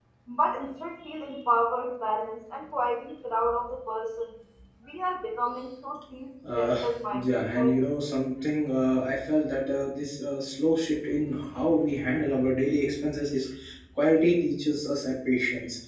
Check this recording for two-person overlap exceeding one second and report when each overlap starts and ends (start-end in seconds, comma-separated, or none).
6.6-7.9